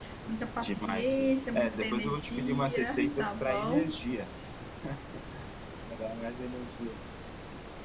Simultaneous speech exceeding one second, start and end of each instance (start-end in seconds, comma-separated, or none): 0.6-3.9